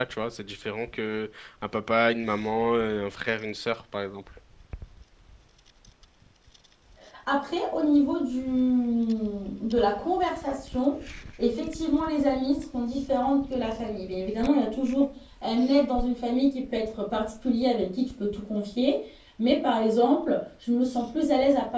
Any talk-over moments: No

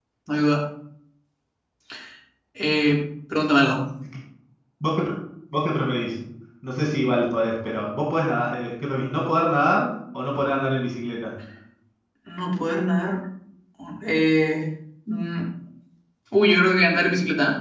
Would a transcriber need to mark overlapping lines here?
No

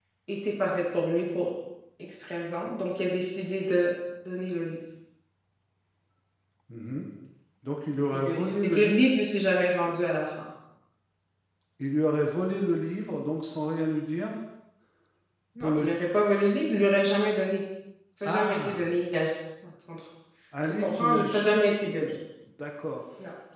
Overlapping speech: Yes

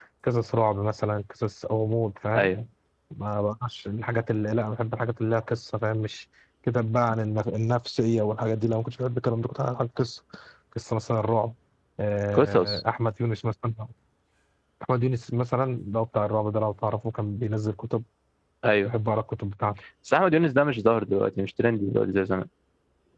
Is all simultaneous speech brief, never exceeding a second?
Yes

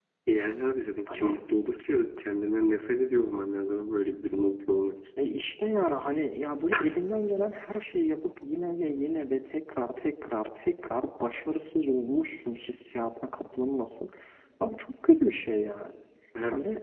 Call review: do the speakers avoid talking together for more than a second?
Yes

